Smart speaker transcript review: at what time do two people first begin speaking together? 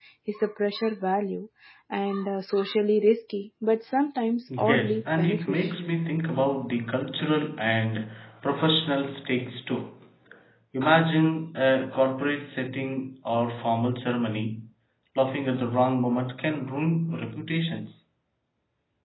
4.5 s

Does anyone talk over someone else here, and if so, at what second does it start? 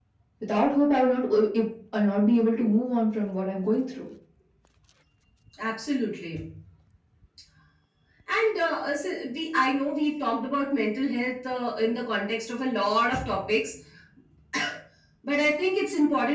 none

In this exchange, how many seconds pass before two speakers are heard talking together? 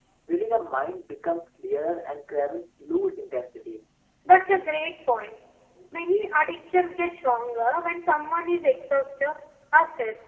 none

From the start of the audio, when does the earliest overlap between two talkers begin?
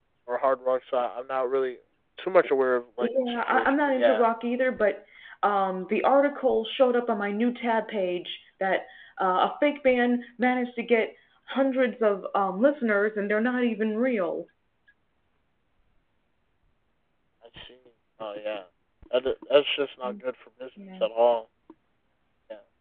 3.0 s

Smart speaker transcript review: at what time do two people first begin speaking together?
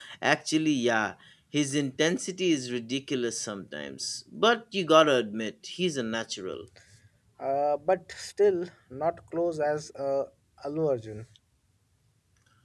none

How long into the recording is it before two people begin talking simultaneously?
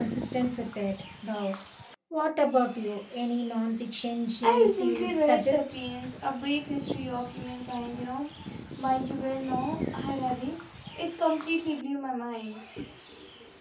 4.4 s

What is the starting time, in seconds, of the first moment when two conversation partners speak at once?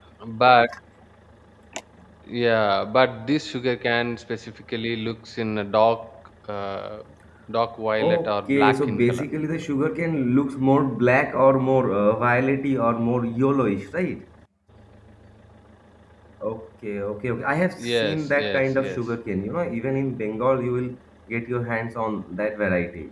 8.0 s

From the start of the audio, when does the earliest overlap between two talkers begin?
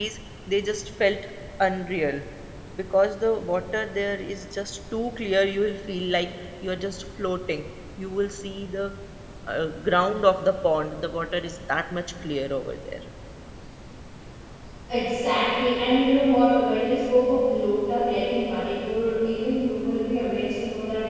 none

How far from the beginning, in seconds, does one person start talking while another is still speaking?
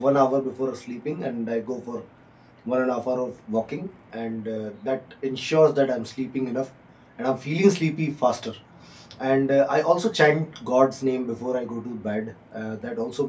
none

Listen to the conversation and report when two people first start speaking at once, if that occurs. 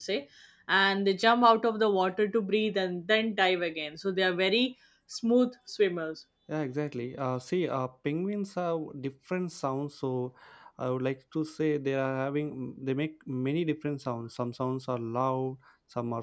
none

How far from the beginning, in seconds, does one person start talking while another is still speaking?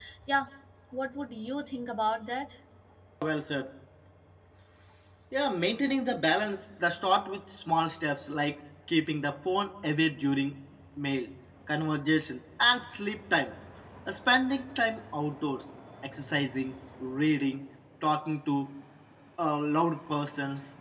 none

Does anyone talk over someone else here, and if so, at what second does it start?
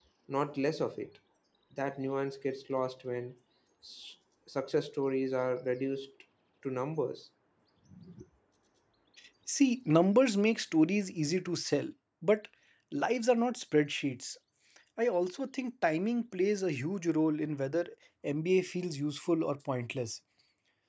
none

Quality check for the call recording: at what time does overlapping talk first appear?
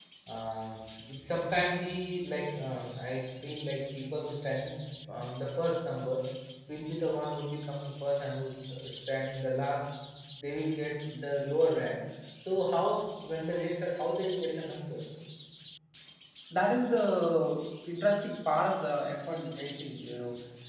none

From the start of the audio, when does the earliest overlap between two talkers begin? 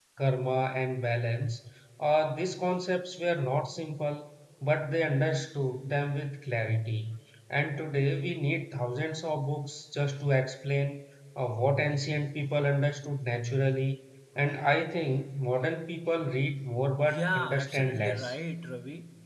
17.0 s

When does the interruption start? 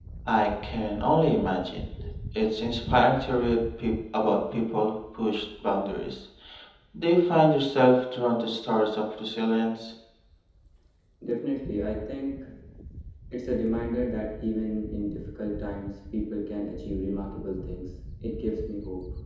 none

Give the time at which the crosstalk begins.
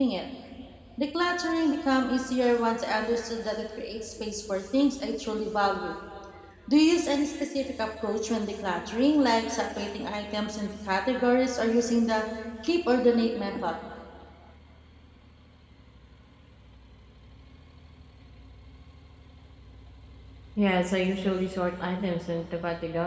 none

